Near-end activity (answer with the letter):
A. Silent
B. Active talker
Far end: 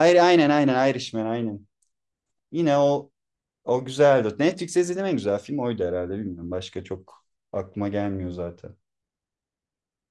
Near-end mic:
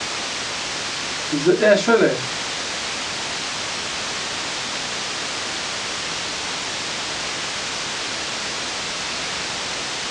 B